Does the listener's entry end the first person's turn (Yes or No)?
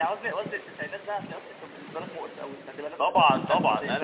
Yes